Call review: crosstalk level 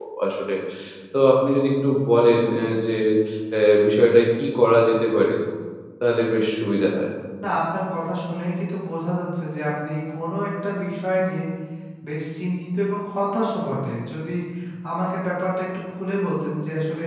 none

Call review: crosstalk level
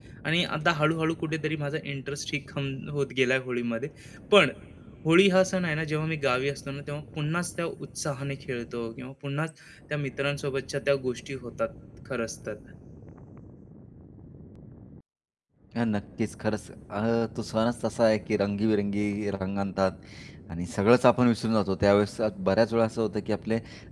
none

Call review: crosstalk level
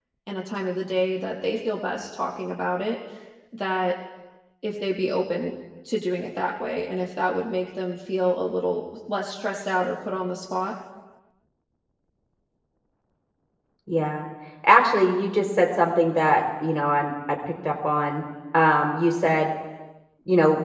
none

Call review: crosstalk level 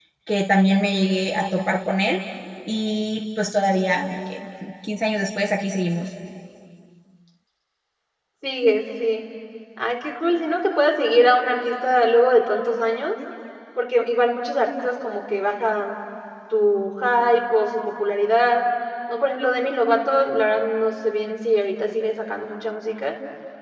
none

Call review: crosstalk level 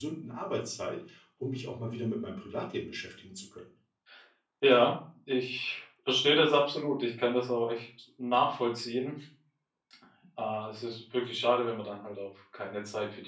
none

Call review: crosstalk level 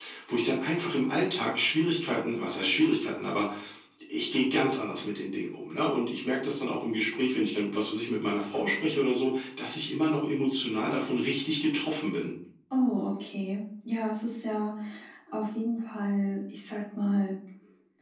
none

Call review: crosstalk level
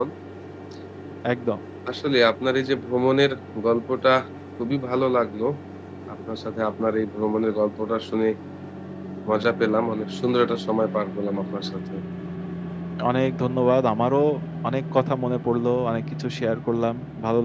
none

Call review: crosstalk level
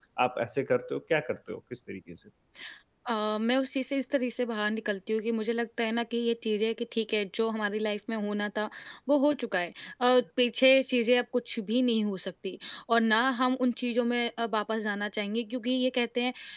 none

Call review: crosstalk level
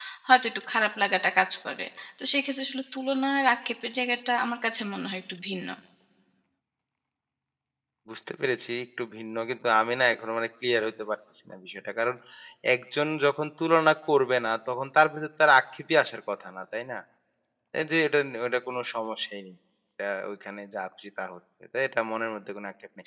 none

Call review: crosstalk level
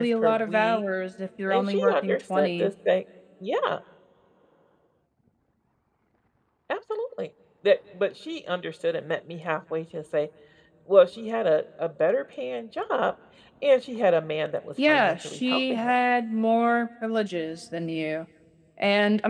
present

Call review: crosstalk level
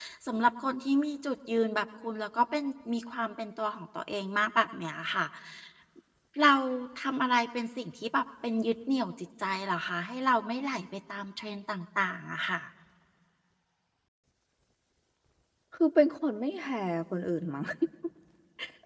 none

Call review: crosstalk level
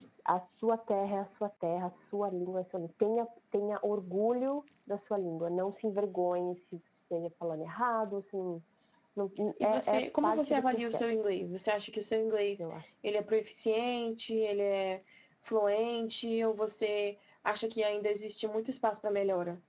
present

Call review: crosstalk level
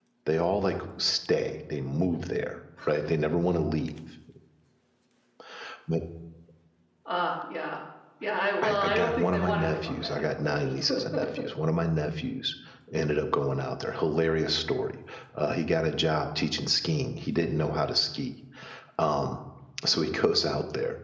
present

